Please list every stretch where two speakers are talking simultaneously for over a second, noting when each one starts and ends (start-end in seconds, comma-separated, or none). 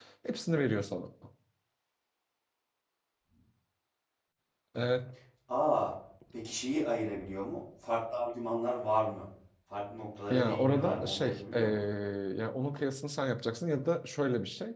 10.3-11.6